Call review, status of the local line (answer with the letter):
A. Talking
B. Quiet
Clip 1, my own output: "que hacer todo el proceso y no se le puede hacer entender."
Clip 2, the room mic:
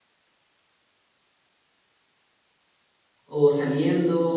A